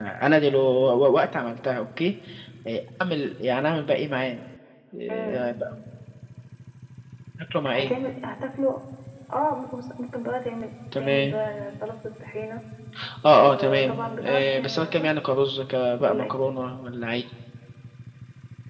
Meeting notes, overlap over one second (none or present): present